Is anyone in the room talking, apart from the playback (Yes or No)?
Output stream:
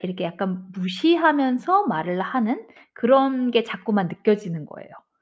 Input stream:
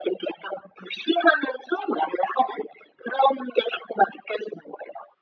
No